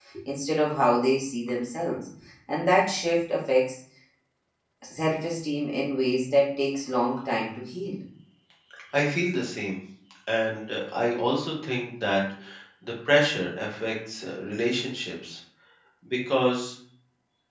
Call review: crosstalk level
none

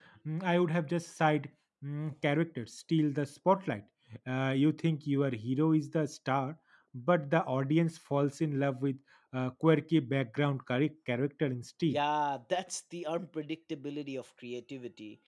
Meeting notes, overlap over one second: none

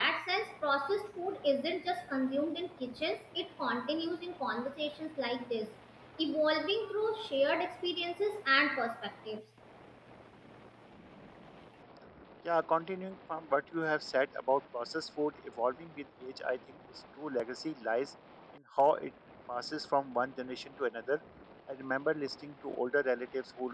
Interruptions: none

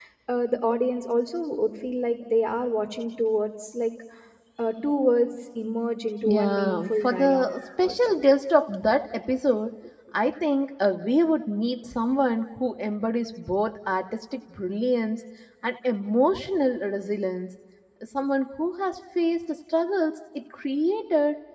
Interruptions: present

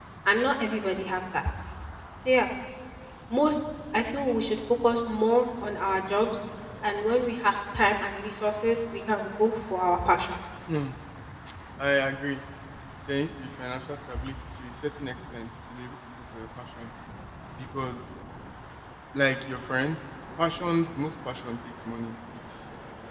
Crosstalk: none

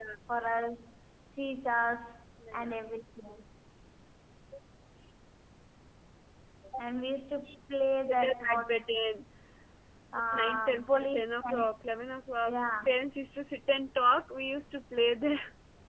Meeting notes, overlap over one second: present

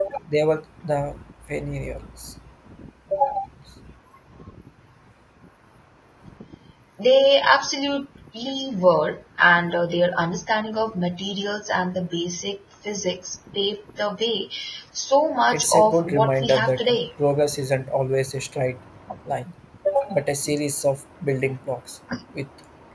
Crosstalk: present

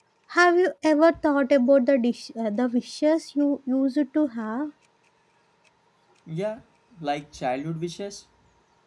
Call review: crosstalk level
none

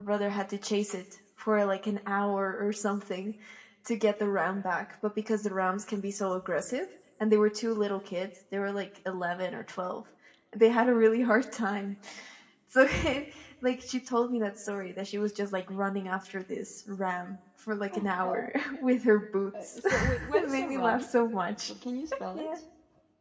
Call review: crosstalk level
present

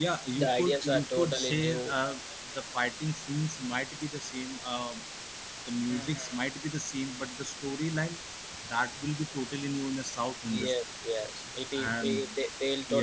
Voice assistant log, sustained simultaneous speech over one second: present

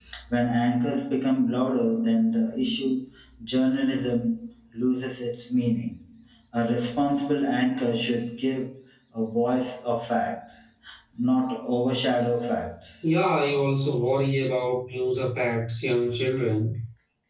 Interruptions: none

